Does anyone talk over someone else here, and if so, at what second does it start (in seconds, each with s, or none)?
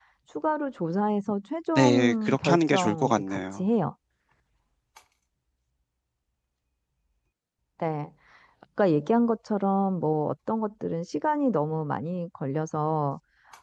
1.8 s